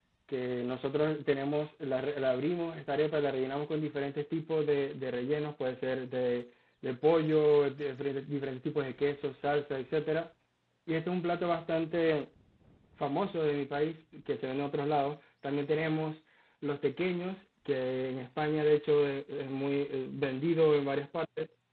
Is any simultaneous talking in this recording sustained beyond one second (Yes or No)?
No